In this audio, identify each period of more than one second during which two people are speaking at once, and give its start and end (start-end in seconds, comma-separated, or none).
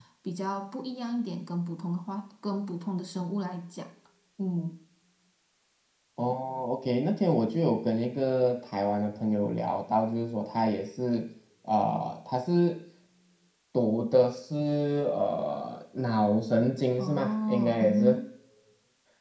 17.0-18.2